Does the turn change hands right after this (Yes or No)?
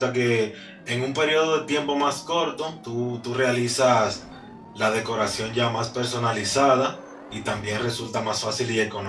No